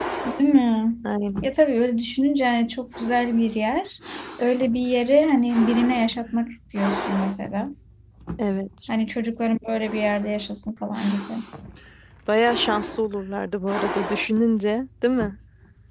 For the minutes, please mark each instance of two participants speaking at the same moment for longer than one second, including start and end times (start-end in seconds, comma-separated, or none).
none